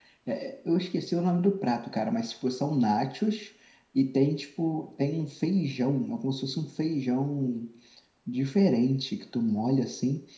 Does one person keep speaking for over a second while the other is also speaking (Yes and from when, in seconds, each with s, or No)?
No